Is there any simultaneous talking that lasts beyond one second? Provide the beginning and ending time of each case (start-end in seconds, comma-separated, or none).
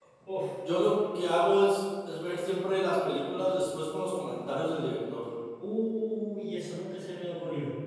none